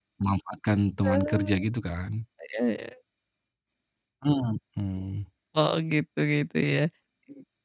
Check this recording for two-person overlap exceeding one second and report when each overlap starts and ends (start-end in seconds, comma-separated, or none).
none